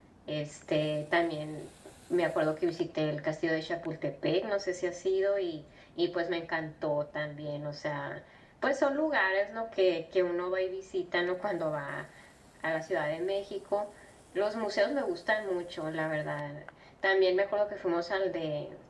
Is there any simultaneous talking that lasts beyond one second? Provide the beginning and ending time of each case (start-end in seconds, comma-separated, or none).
none